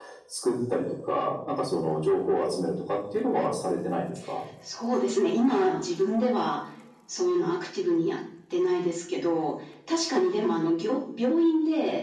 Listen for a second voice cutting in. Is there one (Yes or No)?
No